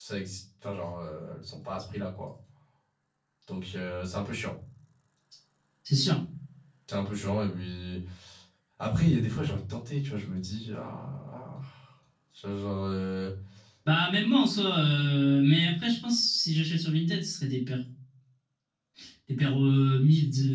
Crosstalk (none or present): none